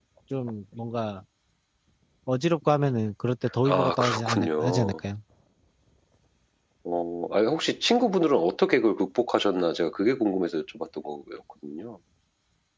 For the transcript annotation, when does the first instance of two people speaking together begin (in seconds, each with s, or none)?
3.6 s